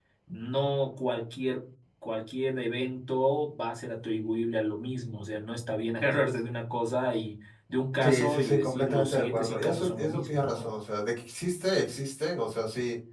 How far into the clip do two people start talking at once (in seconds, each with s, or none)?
8.0 s